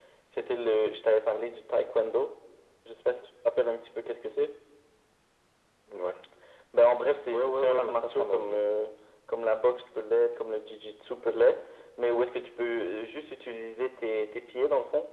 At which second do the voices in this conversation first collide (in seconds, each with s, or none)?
7.3 s